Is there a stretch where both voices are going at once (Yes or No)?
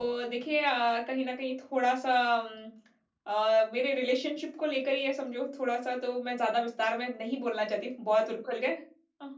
No